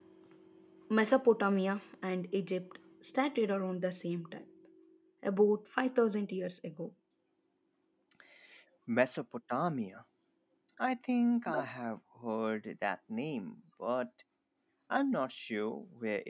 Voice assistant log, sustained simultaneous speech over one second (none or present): none